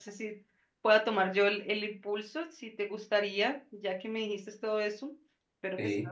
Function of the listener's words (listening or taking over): listening